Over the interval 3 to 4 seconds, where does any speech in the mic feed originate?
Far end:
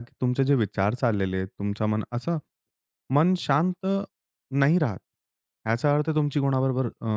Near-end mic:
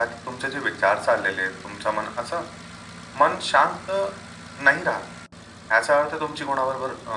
echo only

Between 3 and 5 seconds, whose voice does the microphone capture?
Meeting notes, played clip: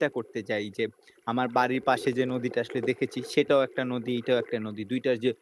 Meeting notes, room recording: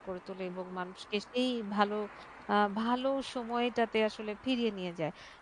user only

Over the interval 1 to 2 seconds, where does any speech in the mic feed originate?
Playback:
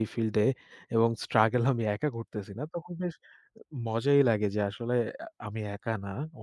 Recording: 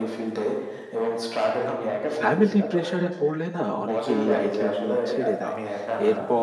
echo only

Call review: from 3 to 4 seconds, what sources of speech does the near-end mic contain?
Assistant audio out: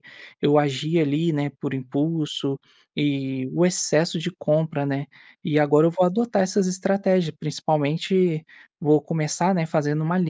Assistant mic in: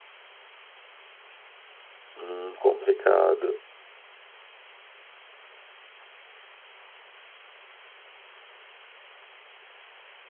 user only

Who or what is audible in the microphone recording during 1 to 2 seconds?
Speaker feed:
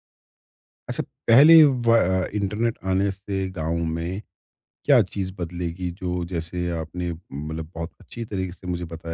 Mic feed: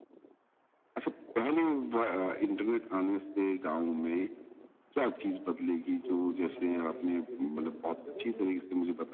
echo only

